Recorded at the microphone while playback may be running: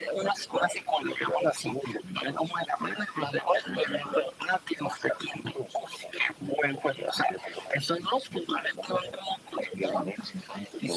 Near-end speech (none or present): none